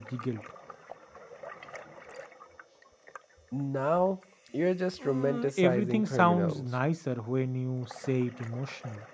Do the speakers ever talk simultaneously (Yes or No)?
Yes